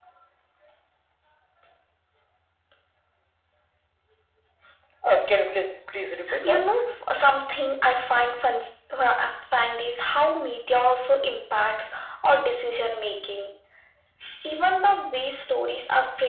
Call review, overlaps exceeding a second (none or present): none